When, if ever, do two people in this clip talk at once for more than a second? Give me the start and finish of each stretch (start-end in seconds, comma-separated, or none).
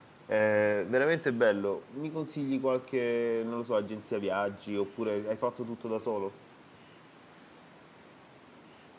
none